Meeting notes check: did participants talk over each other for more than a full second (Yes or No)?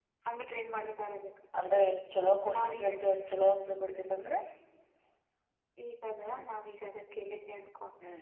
No